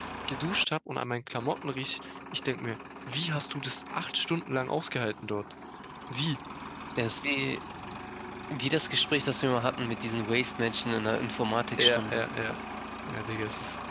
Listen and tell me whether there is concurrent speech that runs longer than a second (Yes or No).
No